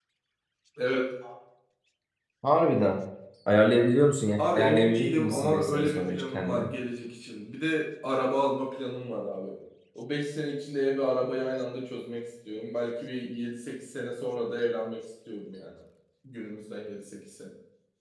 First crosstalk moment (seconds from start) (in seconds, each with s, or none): 4.4 s